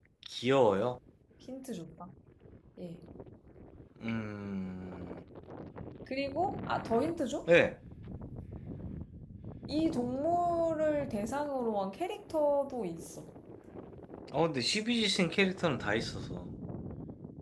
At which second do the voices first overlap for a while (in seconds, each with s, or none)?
none